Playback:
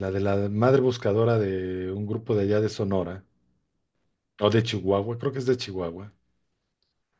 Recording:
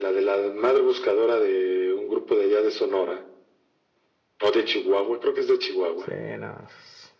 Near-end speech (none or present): present